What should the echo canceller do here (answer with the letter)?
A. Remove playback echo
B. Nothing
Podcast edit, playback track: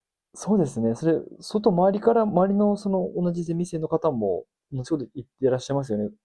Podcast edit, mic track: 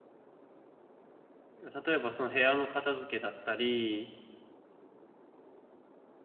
B